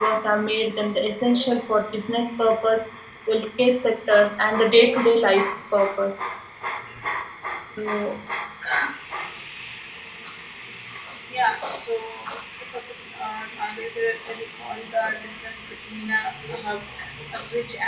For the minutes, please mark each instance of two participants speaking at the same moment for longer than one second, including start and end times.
none

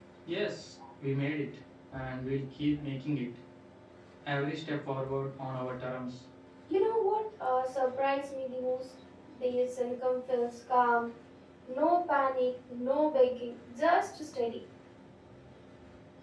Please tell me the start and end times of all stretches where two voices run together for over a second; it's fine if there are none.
none

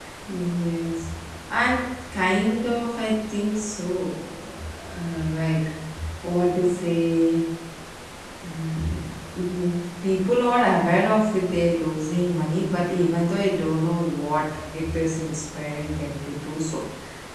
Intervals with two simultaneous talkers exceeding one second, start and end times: none

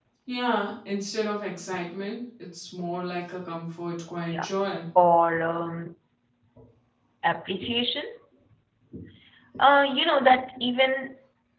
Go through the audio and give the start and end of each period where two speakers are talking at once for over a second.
none

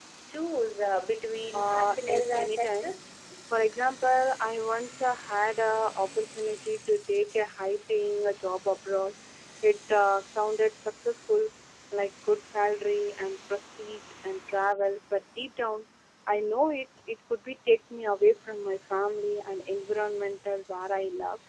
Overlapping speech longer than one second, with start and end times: 1.5-3.0

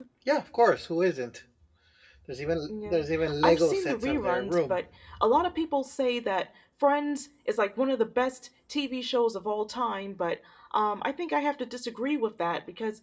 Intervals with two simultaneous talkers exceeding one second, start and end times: 3.4-4.8

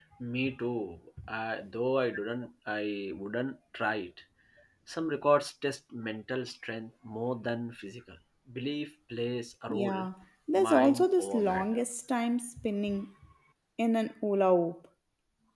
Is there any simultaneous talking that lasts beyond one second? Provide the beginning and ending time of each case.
10.6-11.8

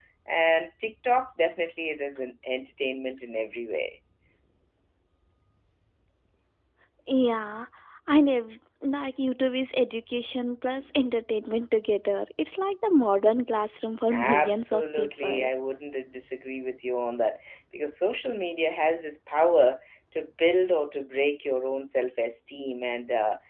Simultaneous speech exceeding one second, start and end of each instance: 14.1-15.5

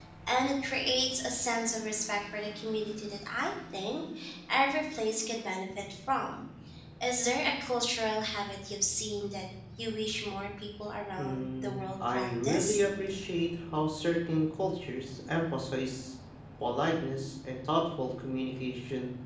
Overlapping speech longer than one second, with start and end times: 11.2-12.8

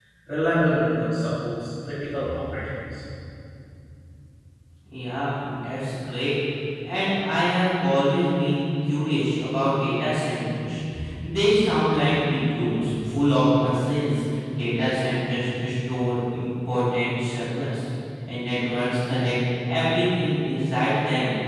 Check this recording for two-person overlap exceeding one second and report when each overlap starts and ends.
none

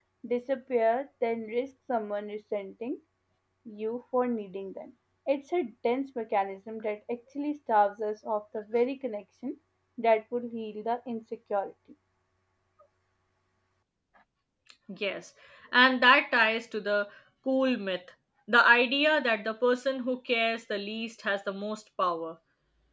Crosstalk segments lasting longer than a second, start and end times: none

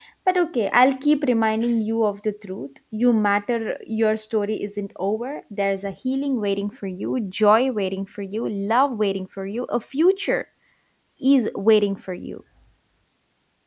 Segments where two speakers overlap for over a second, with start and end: none

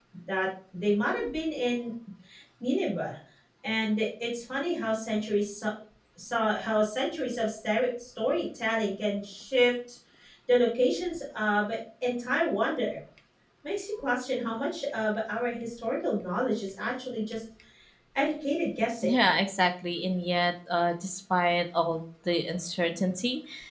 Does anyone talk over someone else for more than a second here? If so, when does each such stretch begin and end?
none

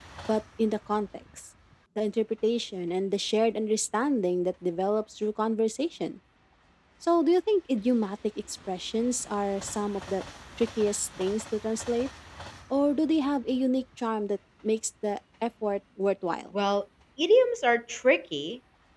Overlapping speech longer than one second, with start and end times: none

